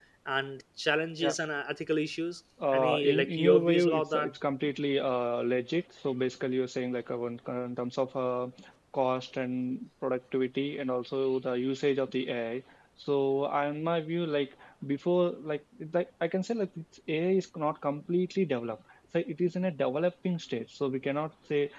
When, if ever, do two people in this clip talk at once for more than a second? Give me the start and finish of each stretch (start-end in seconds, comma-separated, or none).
2.7-4.3